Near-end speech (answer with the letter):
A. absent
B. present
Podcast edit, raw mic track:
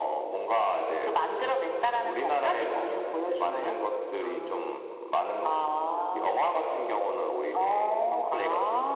B